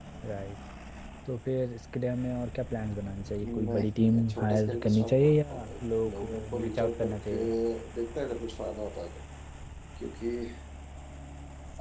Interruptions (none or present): present